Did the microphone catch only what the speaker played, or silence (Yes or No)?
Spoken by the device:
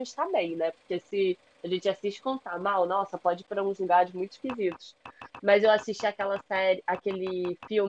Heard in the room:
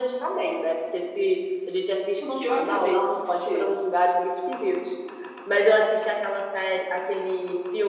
No